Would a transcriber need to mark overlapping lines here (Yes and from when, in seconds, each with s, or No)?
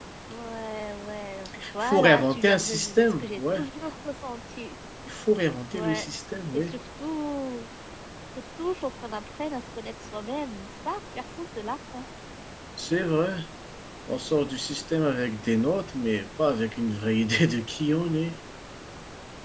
Yes, from 1.5 s